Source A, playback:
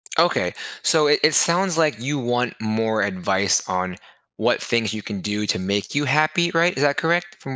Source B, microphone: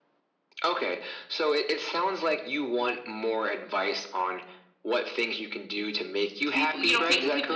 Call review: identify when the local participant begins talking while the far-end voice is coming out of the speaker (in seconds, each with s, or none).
6.5 s